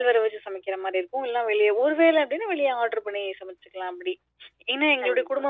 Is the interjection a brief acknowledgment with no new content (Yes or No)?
Yes